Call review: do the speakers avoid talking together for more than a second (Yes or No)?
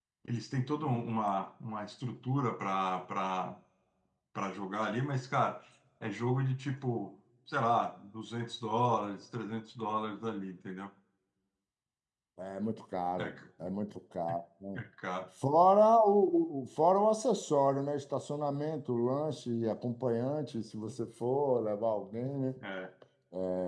Yes